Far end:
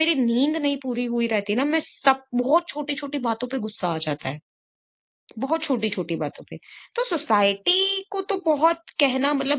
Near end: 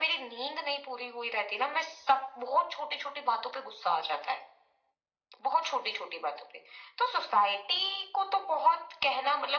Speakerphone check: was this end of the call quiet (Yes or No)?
Yes